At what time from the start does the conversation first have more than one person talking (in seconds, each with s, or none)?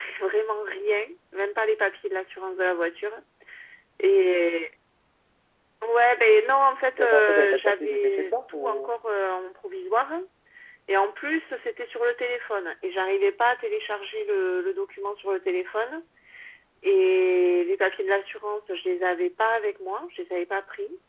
7.0 s